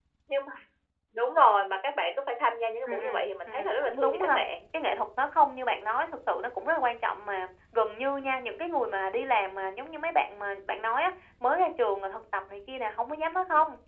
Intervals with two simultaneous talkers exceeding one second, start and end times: 2.9-4.4

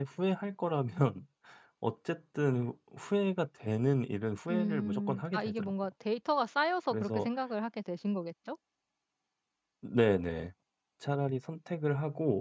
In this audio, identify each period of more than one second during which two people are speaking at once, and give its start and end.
4.5-5.7

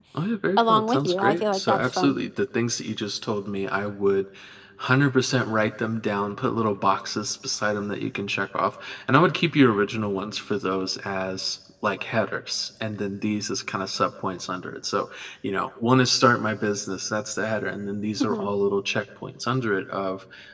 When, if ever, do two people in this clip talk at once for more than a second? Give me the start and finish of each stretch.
0.6-2.2

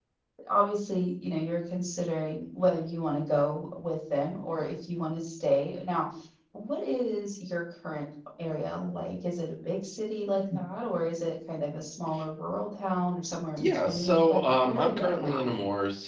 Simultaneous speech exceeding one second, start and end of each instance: 13.6-15.5

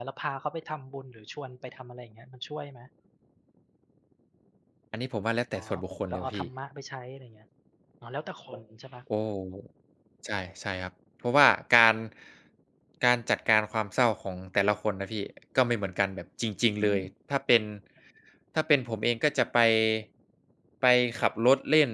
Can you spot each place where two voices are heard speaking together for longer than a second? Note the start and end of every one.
none

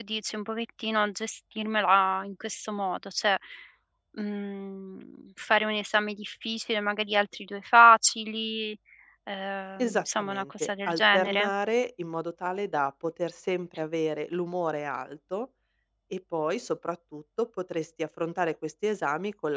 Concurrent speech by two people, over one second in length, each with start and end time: 9.8-11.5

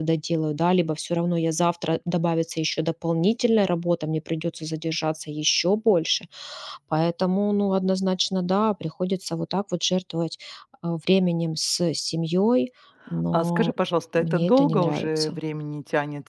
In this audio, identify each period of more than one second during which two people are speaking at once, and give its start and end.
14.2-15.4

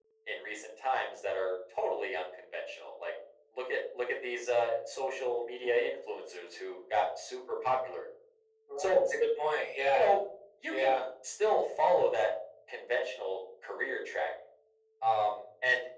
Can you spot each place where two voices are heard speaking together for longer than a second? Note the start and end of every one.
none

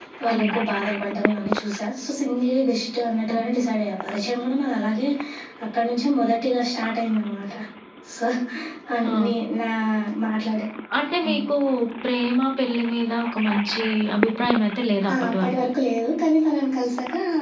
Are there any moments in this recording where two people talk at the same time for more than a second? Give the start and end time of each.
none

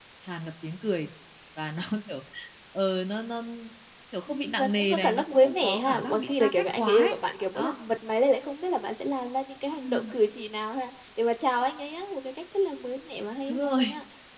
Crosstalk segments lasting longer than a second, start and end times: 4.3-7.2

